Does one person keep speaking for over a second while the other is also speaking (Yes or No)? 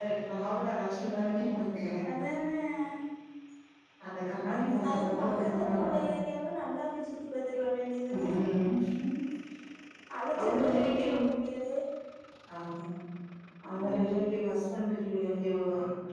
Yes